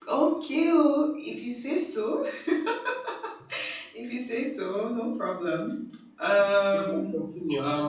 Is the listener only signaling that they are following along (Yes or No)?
No